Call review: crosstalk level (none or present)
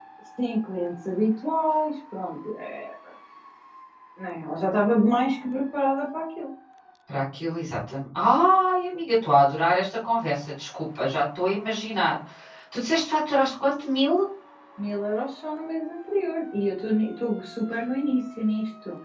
none